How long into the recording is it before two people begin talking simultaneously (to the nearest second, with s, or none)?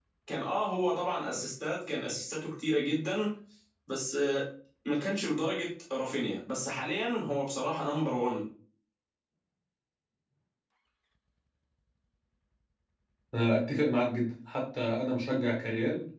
none